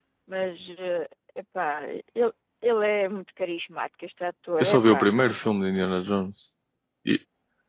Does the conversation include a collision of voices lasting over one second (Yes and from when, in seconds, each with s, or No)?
No